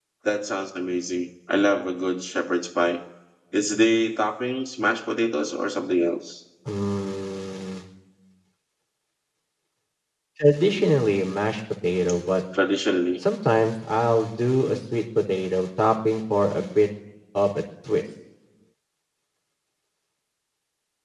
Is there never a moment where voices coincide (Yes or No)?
Yes